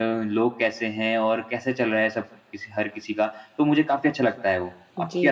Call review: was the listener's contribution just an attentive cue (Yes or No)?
No